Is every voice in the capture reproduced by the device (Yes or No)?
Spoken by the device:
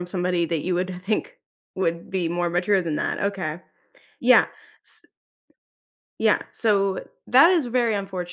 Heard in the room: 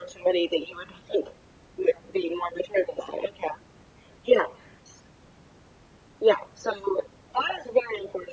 Yes